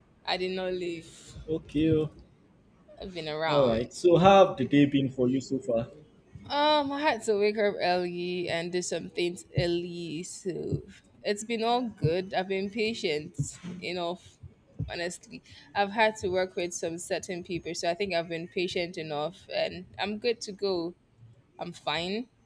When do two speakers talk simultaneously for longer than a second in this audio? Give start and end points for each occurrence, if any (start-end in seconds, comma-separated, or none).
none